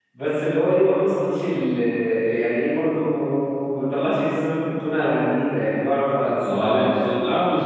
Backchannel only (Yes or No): No